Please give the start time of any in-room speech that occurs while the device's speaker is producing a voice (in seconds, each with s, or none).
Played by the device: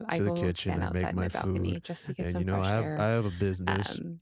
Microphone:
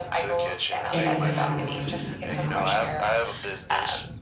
0.9 s